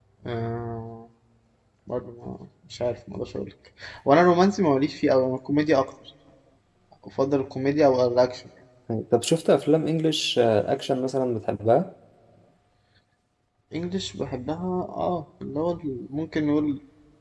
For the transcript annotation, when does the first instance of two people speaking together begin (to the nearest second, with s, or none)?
none